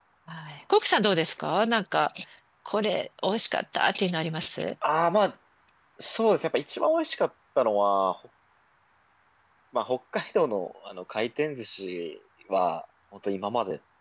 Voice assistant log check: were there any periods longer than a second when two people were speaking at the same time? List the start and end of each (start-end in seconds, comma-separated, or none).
none